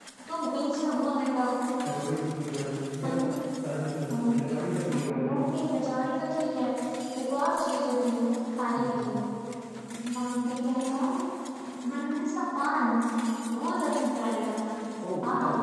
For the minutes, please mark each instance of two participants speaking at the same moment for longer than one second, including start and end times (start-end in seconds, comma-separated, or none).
none